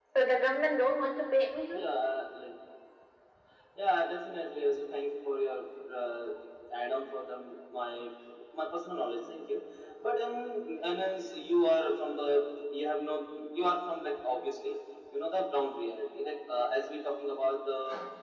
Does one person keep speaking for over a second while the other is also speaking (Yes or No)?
No